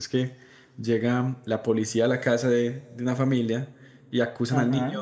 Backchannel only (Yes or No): Yes